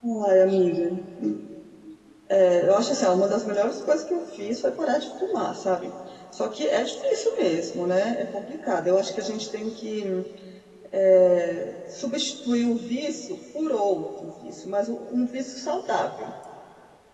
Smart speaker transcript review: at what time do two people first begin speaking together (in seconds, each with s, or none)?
none